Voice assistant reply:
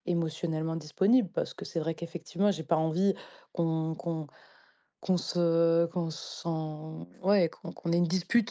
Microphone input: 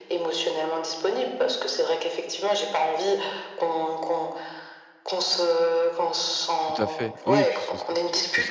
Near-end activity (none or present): present